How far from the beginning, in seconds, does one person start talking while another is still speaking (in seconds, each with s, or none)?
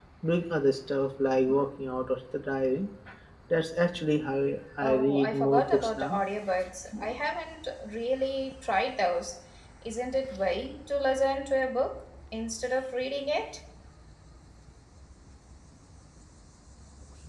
4.8 s